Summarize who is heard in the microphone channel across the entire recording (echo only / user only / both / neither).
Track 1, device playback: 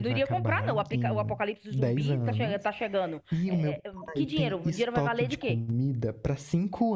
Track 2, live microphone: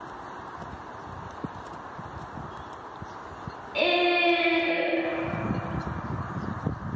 user only